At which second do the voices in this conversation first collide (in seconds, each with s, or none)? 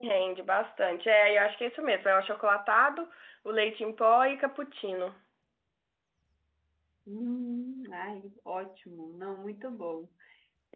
none